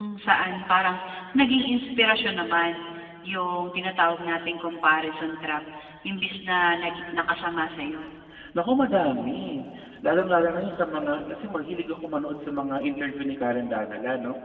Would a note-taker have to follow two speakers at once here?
No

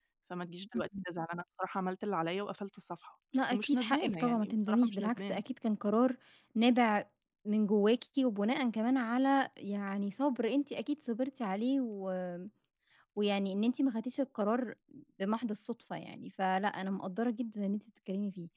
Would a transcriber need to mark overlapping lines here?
Yes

